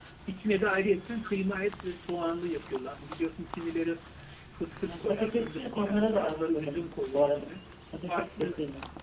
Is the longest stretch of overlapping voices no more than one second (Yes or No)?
No